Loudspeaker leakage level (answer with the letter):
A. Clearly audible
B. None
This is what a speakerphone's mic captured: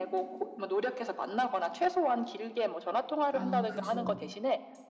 A